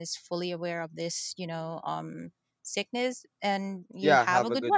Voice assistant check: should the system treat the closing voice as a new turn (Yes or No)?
Yes